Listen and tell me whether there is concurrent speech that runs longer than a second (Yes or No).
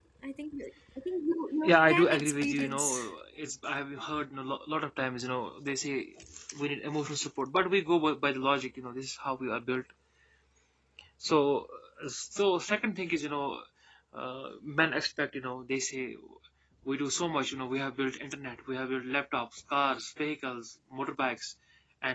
Yes